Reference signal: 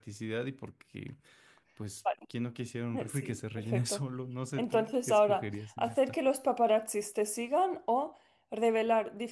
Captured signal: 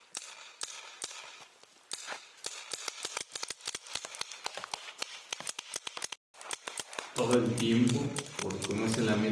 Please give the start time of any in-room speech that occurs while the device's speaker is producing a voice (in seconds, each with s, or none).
7.1 s